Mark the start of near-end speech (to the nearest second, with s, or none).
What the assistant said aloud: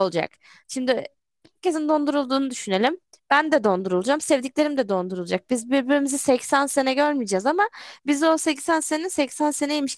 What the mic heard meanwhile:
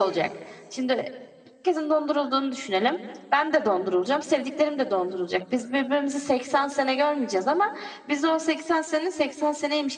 none